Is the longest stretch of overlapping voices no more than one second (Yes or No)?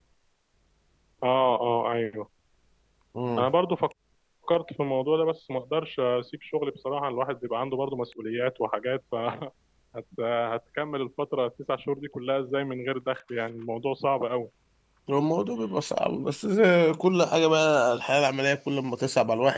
Yes